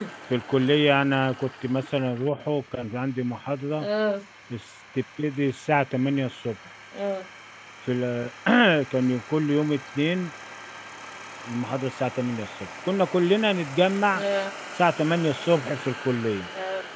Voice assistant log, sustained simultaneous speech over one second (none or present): none